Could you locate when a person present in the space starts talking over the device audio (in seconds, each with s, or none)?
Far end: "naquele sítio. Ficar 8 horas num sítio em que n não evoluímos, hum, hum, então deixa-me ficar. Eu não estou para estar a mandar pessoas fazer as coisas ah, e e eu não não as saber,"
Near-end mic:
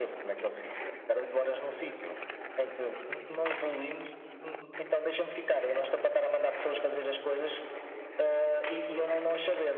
none